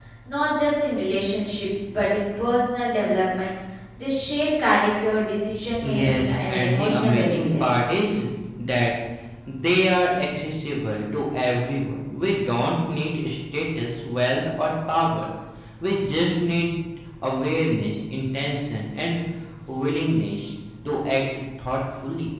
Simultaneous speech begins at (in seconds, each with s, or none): 5.7 s